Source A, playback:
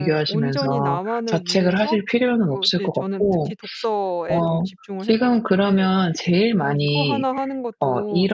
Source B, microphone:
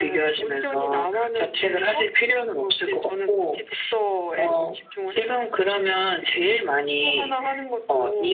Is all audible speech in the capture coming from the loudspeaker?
Yes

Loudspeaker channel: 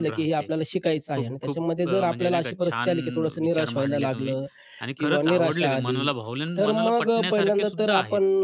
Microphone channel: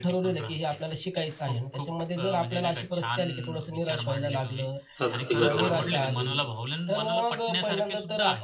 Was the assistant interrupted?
Yes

